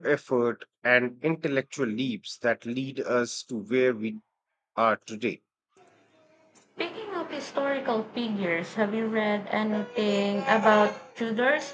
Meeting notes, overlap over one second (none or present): none